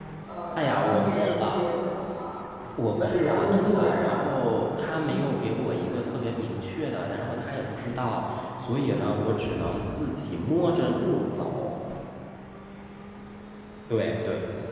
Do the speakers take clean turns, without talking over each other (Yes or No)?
No